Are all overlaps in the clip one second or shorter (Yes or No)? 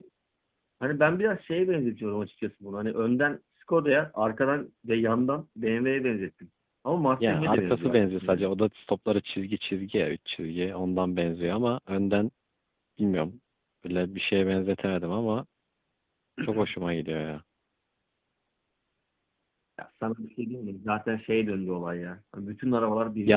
No